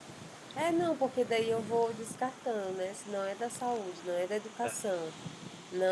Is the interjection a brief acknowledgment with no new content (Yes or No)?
Yes